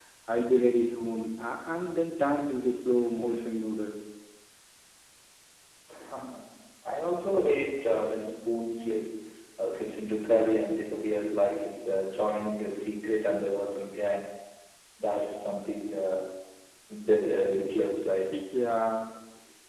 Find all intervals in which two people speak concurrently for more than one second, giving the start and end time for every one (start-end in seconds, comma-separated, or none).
none